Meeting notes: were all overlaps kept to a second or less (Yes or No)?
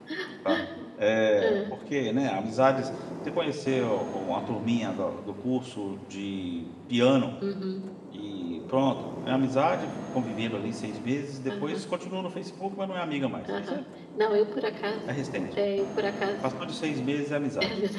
Yes